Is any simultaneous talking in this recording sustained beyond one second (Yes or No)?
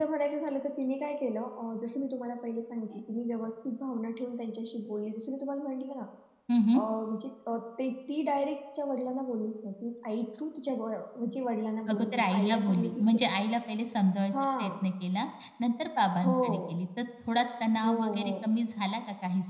Yes